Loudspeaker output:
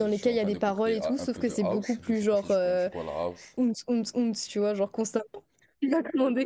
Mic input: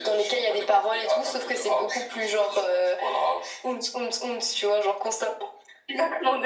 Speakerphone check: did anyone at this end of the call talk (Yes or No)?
No